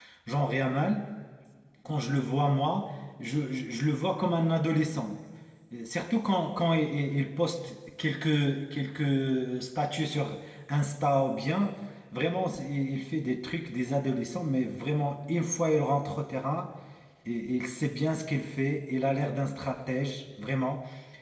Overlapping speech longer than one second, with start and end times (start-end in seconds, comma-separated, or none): none